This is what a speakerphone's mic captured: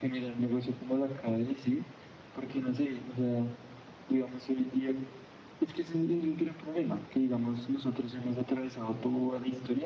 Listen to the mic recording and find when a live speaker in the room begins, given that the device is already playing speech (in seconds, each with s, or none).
none